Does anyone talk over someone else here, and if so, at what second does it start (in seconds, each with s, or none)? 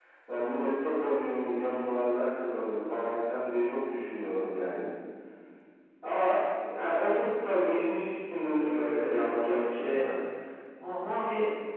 8.6 s